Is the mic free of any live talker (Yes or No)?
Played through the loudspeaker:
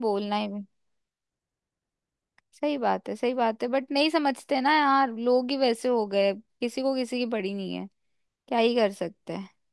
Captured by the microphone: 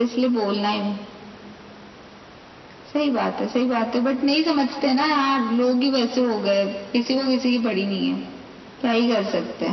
Yes